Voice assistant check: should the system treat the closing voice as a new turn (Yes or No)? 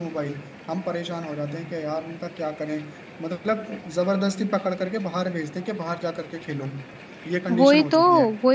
Yes